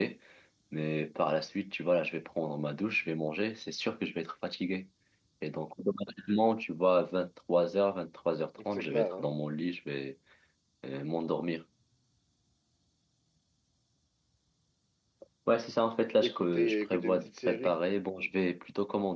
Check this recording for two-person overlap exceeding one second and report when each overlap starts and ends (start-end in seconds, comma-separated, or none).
16.2-17.7